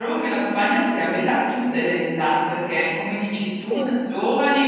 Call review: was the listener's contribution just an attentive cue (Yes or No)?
Yes